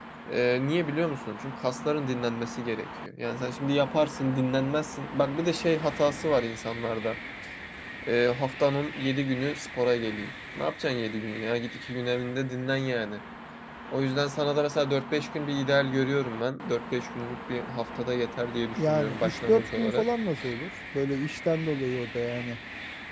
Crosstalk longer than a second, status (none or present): present